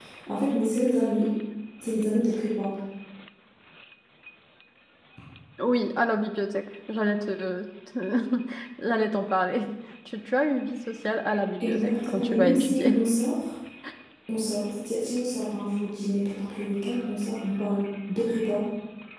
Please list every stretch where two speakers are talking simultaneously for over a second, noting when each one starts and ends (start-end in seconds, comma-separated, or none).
11.6-13.0